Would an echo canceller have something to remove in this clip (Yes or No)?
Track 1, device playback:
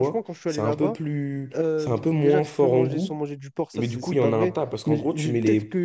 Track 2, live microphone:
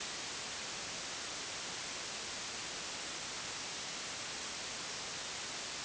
No